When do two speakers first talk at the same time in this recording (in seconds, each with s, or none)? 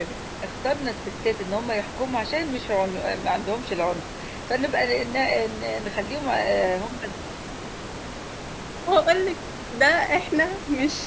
none